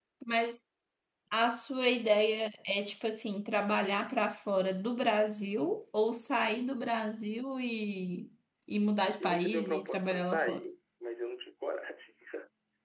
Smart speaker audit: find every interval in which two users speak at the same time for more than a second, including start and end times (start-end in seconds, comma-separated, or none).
9.2-10.6